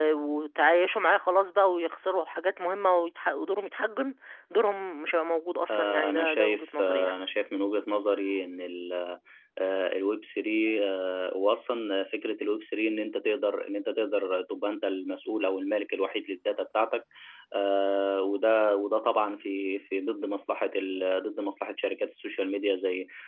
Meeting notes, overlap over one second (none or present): present